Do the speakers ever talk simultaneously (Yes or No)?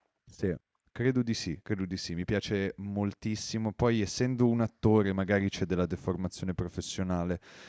No